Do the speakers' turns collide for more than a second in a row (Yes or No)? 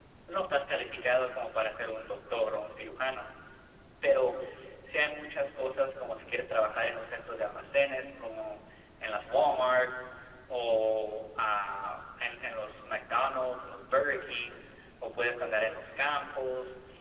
No